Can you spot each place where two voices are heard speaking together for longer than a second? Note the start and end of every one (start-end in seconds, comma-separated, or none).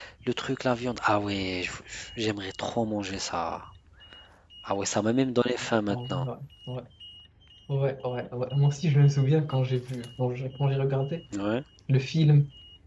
none